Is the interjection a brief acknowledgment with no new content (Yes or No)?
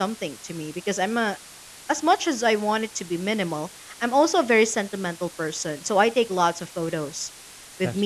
Yes